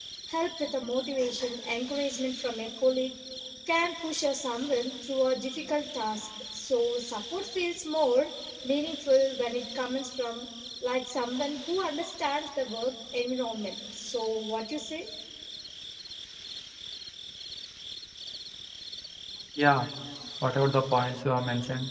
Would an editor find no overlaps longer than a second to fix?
Yes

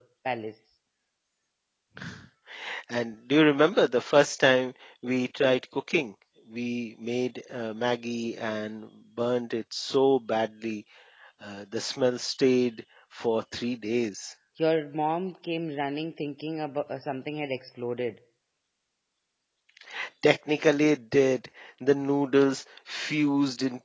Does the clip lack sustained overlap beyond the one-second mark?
Yes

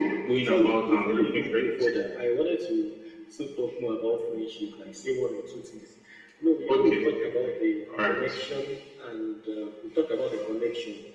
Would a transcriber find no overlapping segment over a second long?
No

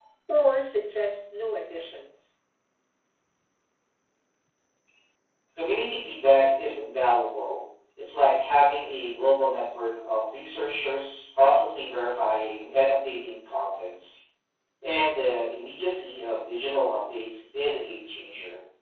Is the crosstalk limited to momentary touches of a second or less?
Yes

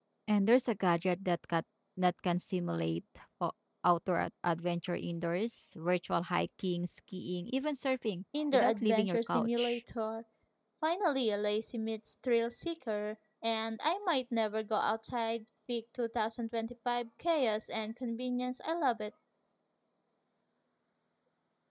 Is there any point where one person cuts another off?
Yes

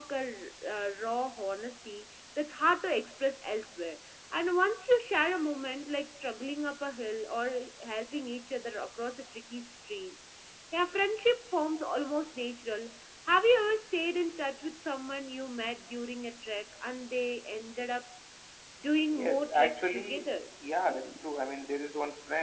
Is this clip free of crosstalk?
No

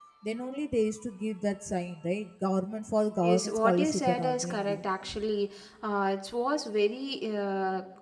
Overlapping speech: Yes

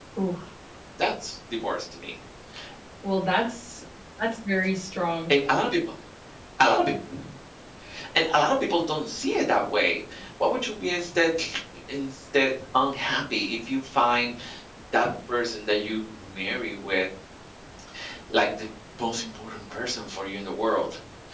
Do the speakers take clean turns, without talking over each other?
Yes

